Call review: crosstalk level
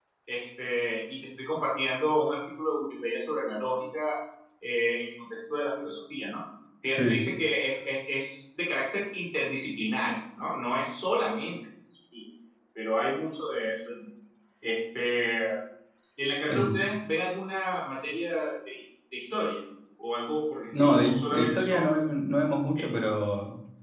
present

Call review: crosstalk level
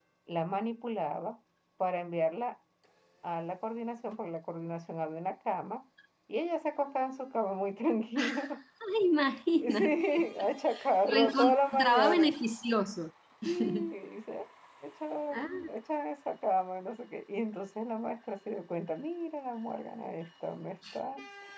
present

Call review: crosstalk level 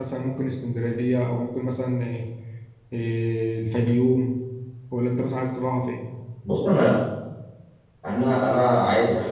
none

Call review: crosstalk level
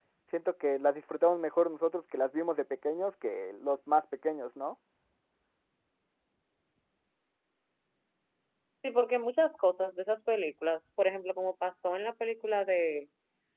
none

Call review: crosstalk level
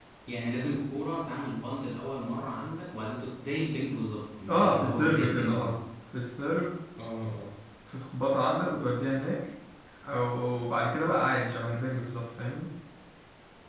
present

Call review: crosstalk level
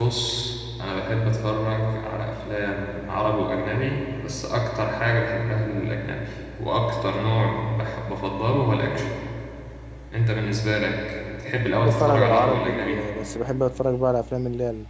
present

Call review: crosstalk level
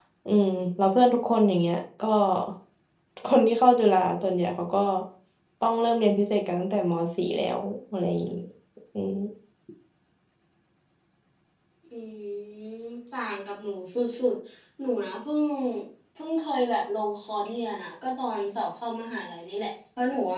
none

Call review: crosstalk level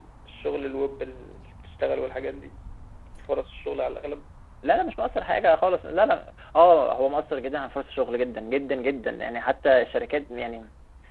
none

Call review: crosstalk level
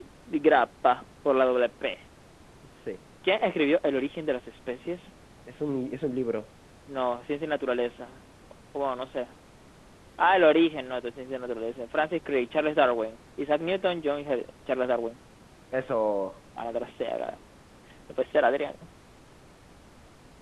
none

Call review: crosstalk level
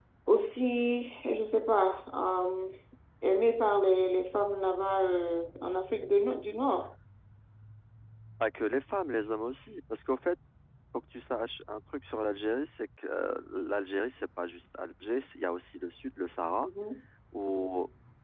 none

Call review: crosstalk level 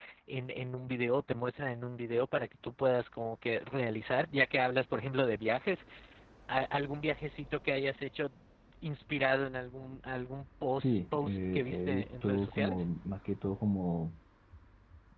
present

